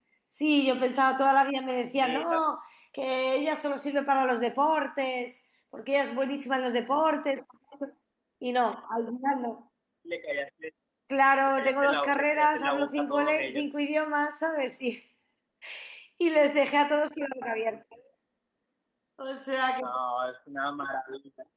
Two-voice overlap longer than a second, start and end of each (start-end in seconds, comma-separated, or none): 11.5-13.7